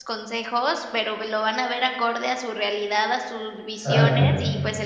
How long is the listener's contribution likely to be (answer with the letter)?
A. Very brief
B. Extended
A